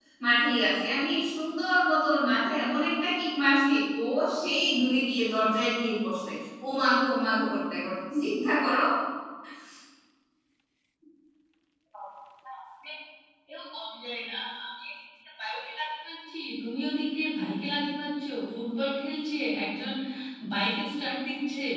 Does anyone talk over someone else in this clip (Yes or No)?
No